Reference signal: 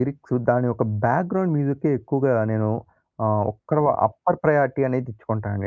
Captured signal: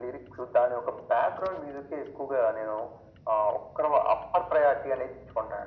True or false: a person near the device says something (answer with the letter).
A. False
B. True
A